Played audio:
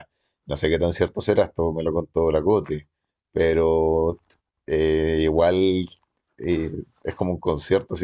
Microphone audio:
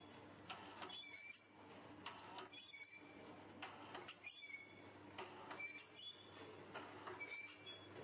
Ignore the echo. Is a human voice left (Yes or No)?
No